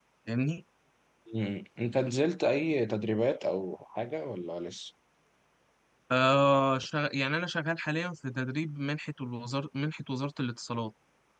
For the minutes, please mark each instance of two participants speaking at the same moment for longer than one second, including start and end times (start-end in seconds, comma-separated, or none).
none